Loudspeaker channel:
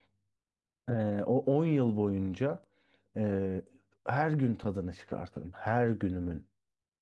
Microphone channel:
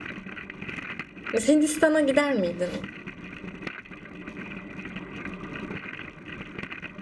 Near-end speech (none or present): present